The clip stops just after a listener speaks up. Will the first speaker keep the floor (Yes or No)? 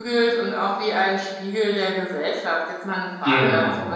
Yes